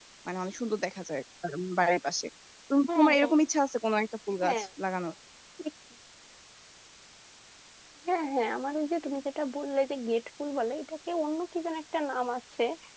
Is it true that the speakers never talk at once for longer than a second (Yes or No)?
Yes